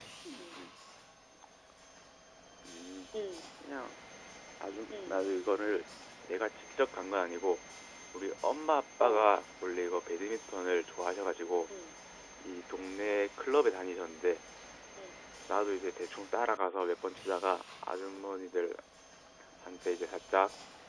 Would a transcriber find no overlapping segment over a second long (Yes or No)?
Yes